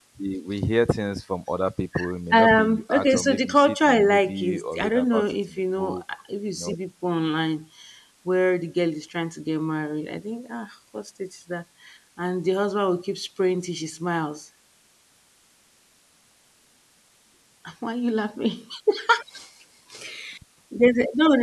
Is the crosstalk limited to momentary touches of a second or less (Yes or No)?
No